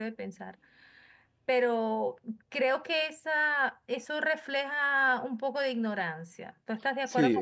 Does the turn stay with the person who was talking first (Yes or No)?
No